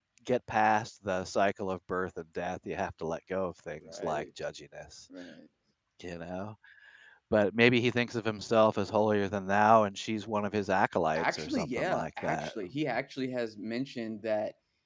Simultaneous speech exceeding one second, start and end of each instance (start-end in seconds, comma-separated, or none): 11.2-12.5